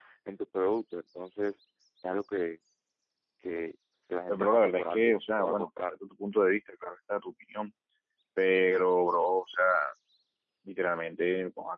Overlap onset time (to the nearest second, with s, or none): 4 s